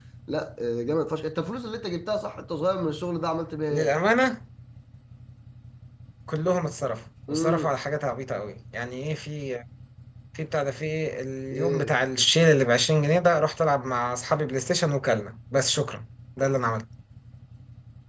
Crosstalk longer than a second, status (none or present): none